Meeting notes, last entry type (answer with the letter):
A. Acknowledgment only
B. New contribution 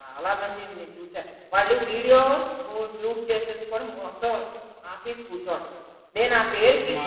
A